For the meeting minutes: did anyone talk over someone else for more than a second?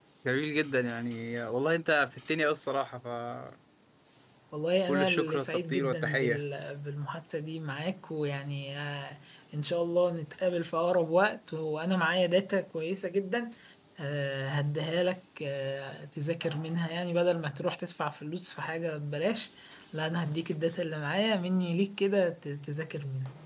Yes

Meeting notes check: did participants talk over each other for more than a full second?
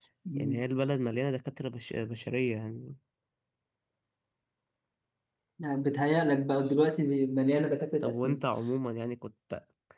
No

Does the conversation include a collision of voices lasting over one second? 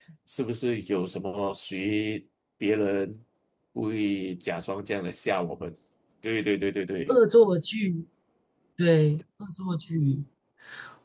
No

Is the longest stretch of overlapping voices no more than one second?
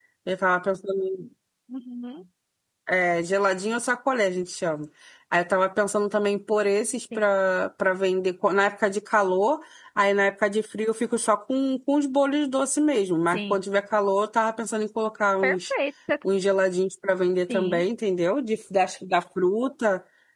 Yes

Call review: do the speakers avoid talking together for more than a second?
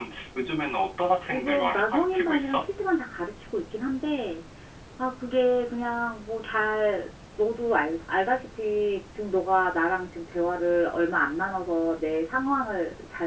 No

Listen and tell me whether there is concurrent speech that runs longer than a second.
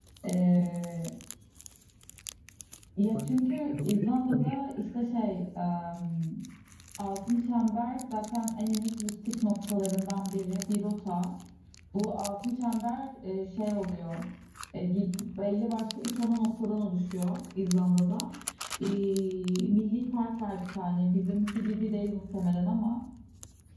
Yes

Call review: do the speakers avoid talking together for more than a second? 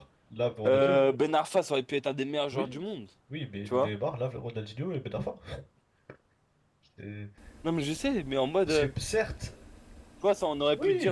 Yes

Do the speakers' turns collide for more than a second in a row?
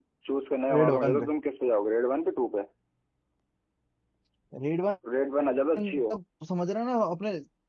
No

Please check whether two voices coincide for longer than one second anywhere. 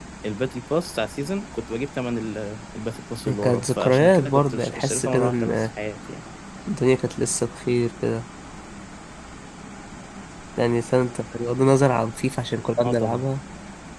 Yes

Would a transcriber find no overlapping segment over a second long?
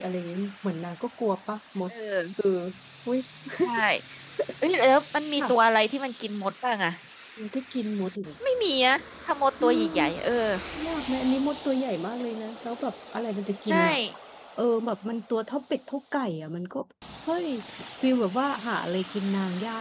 Yes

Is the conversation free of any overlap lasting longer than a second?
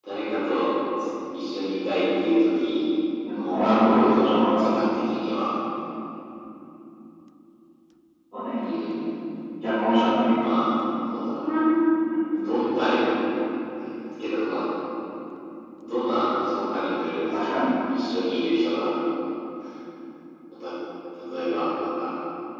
No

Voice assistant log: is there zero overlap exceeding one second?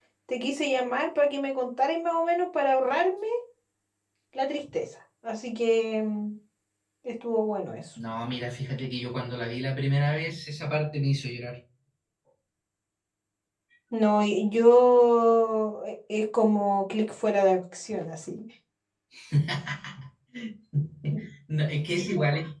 Yes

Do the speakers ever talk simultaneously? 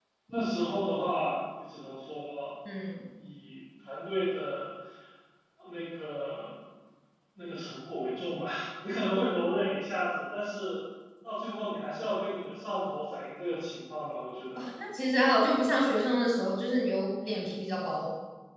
No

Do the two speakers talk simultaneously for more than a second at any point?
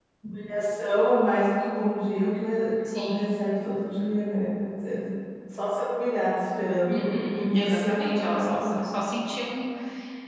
Yes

